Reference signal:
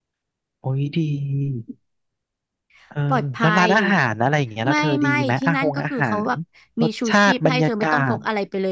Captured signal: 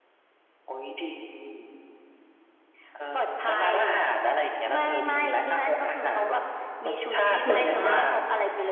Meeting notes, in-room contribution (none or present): present